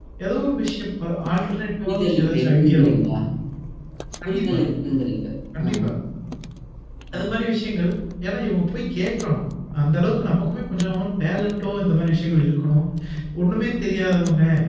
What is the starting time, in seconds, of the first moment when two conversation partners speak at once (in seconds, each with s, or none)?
1.8 s